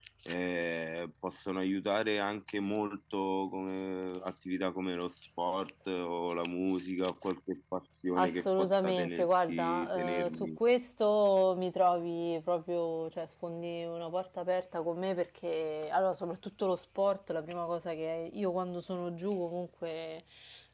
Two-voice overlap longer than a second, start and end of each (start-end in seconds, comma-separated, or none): 8.2-10.5